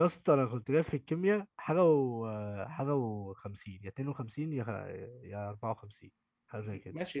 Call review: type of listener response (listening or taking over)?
taking over